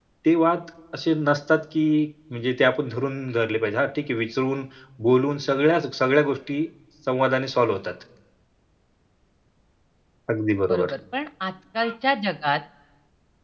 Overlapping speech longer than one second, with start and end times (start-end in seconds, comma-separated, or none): none